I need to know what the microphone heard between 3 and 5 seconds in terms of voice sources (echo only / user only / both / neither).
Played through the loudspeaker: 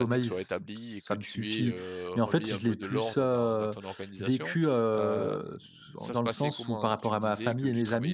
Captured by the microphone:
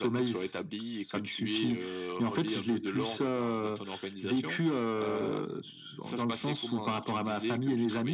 echo only